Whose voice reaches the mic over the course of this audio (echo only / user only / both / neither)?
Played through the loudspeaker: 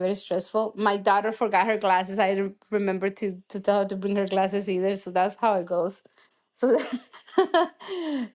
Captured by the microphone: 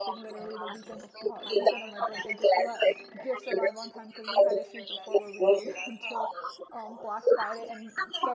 both